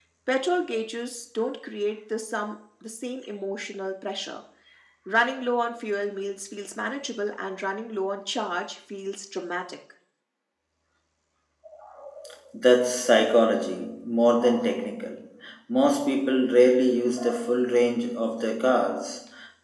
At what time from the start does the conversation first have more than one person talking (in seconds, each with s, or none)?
none